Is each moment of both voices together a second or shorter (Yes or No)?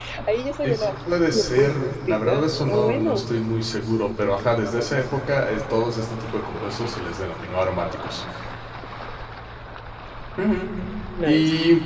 No